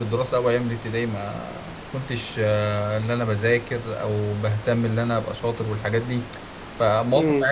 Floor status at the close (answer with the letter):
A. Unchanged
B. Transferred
A